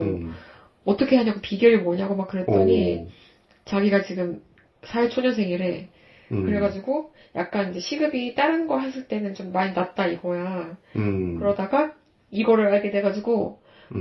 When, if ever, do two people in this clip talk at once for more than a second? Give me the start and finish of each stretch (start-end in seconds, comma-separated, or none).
none